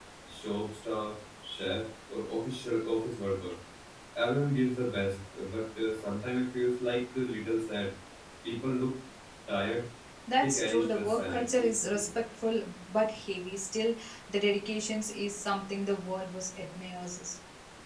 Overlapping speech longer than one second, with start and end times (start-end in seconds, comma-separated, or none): 10.4-11.7